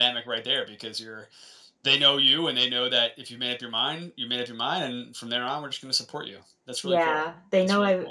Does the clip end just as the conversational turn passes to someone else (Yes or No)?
Yes